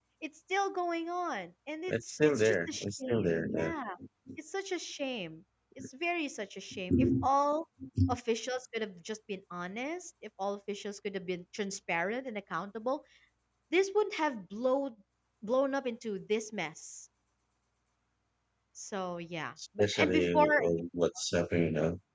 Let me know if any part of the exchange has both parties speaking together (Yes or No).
Yes